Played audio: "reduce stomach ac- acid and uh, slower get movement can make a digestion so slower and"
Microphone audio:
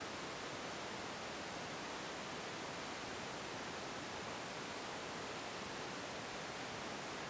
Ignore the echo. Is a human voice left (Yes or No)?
No